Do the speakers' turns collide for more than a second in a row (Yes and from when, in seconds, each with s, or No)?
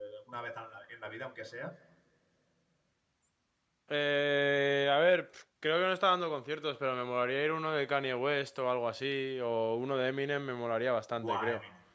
No